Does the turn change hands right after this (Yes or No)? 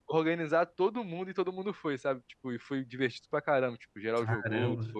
No